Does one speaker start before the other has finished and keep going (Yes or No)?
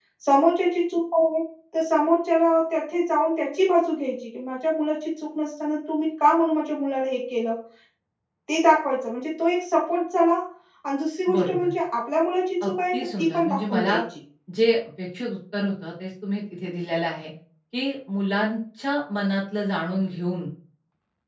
Yes